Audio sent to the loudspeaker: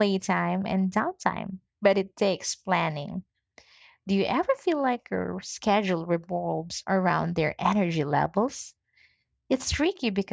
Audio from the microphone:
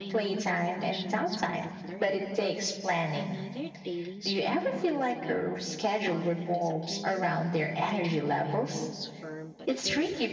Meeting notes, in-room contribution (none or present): present